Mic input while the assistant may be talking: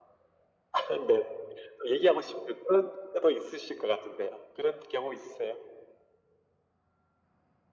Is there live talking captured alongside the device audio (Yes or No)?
No